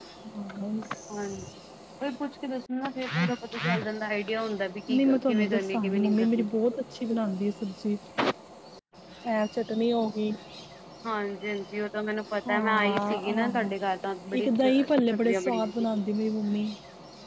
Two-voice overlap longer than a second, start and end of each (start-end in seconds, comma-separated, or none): 4.9-6.5, 12.5-13.8, 14.4-16.0